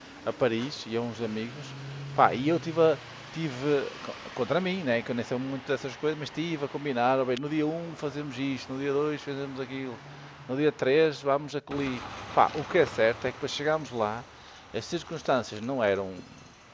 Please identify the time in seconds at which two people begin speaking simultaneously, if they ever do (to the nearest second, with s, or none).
none